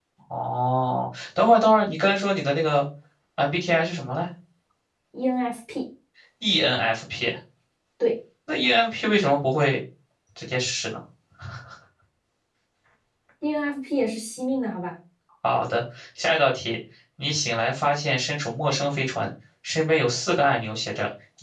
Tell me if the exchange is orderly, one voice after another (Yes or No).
Yes